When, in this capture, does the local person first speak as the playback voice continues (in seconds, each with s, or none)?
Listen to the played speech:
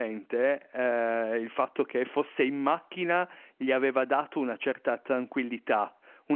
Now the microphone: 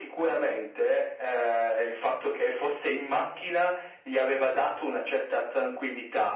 none